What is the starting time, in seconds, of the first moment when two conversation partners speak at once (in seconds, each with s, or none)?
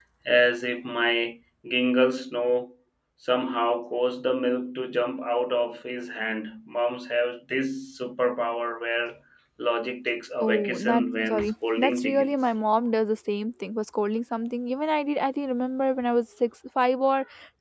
10.4 s